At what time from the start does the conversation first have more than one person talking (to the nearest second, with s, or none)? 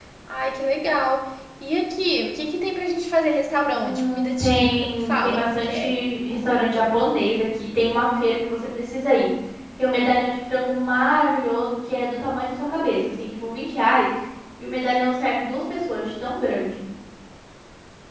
4 s